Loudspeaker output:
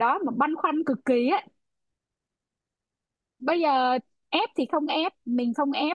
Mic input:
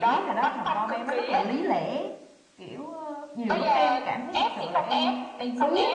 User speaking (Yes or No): Yes